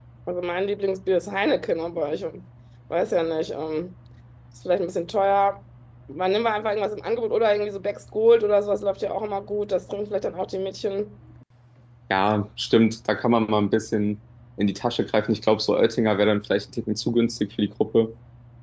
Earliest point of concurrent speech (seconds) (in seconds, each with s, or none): none